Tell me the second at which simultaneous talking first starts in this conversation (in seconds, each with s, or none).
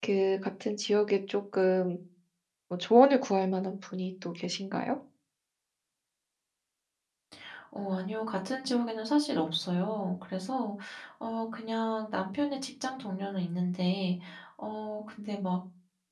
none